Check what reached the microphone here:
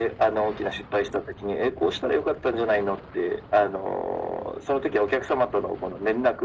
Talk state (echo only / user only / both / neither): echo only